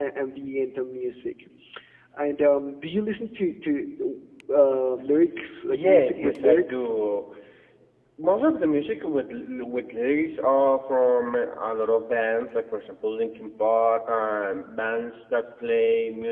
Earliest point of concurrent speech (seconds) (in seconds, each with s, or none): 5.7 s